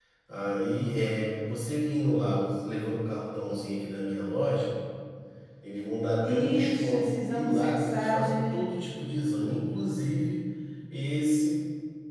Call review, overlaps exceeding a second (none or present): present